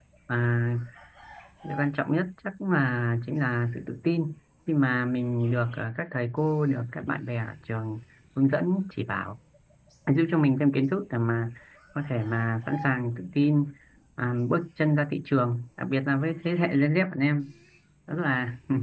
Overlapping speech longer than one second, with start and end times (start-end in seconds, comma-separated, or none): none